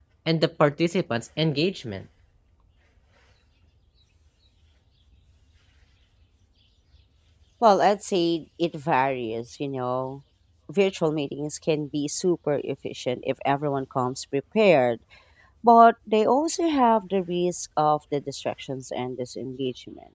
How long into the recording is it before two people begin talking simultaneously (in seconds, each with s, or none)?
none